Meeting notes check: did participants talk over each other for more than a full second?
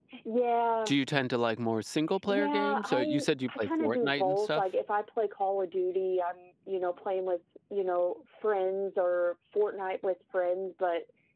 Yes, from 2.3 s

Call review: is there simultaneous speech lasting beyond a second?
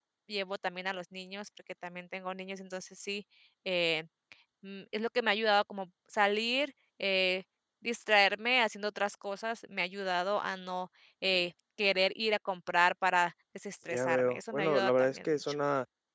Yes, from 13.9 s

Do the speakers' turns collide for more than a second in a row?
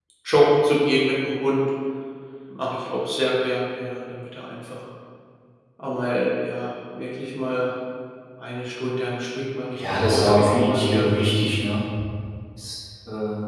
Yes, from 9.7 s

